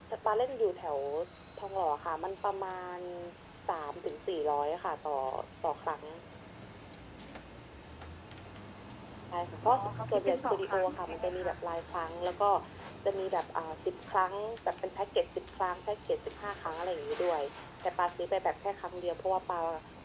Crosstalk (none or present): present